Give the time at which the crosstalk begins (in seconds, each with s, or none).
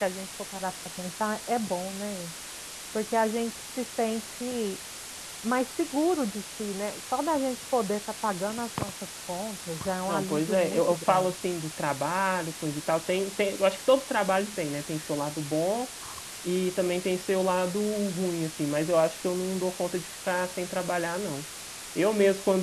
10.1 s